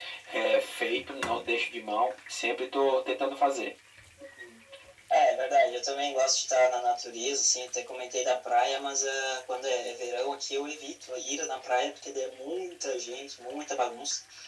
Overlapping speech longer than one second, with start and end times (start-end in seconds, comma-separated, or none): none